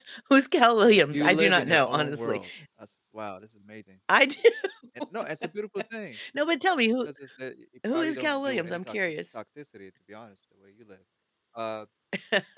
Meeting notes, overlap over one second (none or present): present